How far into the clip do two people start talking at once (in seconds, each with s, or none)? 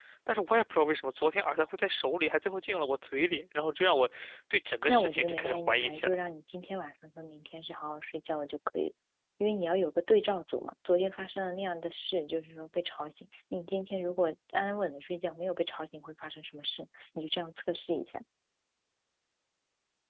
4.9 s